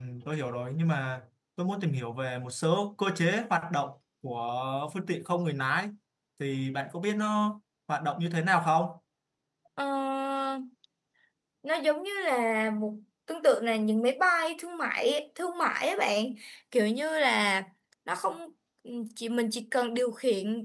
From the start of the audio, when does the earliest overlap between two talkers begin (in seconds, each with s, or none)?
none